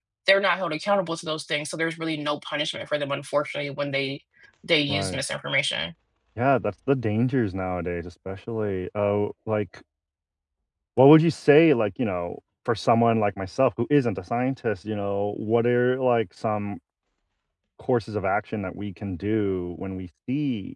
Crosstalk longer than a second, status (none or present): none